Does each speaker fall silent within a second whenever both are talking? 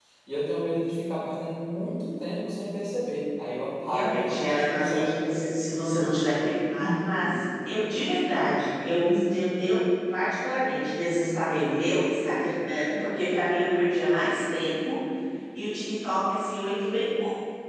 No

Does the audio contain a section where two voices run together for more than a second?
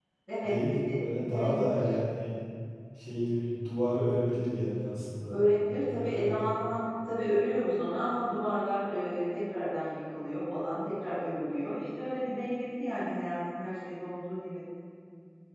Yes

